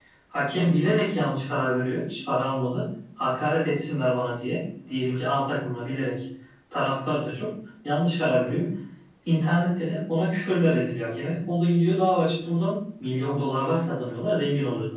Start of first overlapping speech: none

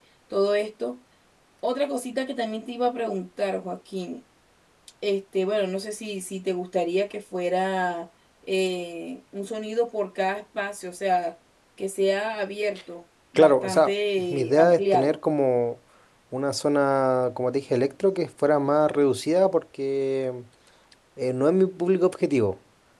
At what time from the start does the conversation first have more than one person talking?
13 s

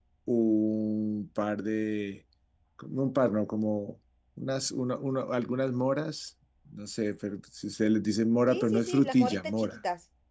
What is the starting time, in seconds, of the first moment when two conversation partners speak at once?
8 s

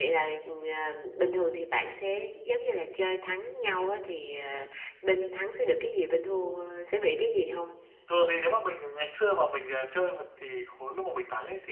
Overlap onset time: none

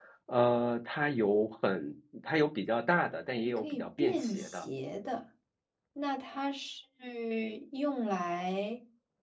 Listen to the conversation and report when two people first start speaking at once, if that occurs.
3 s

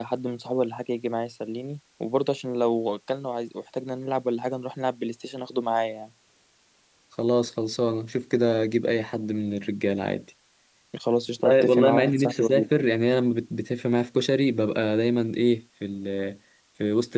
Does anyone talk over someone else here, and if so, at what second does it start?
11 s

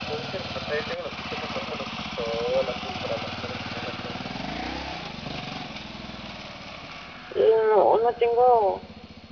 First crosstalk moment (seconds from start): none

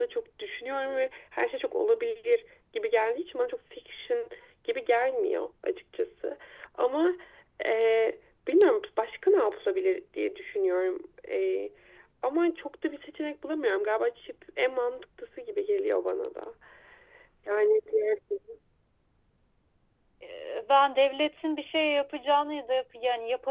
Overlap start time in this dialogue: none

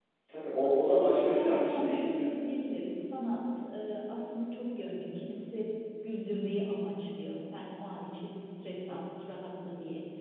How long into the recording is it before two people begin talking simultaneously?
1 s

